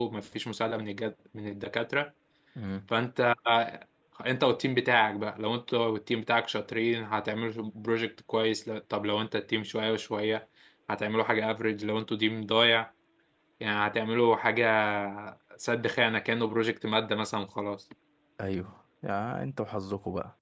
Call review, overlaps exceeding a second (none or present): none